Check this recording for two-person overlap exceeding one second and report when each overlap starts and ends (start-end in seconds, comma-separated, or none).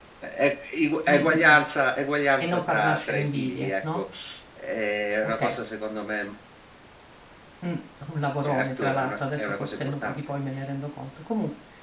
2.4-4.0, 8.4-10.2